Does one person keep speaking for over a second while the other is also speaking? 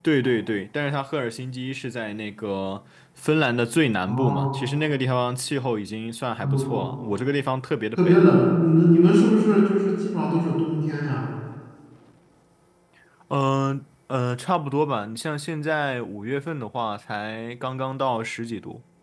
No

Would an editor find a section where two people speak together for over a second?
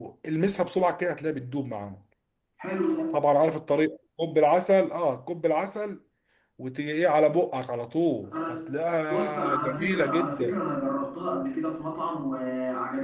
Yes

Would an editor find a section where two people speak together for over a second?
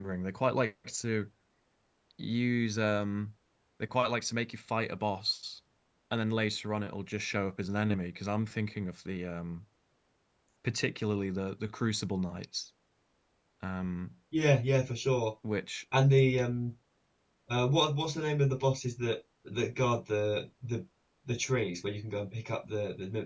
No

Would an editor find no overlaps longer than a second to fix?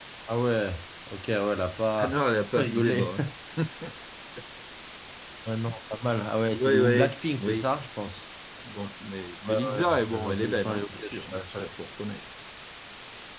No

